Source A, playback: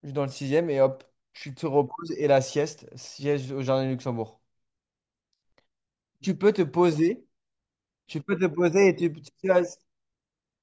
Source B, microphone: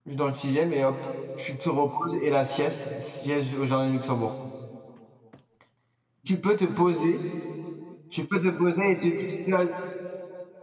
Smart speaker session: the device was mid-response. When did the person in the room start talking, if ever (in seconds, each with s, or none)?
none